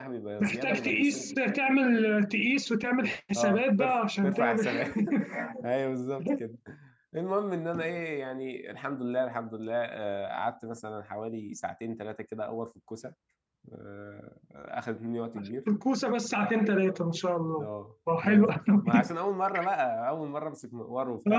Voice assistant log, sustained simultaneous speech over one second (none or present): present